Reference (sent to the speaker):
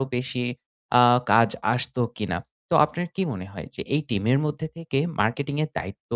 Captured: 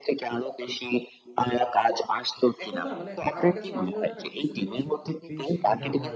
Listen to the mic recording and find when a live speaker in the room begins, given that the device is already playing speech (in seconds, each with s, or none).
2.6 s